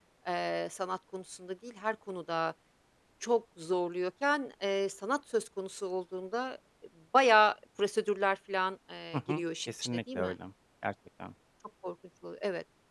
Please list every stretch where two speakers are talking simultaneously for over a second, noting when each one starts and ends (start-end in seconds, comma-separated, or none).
9.1-10.3